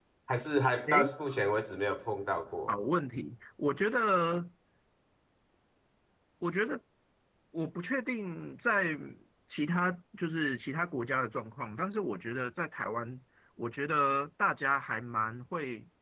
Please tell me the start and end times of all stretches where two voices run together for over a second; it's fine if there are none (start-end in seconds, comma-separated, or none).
none